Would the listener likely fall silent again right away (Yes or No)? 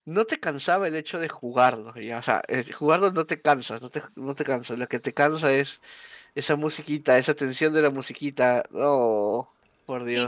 No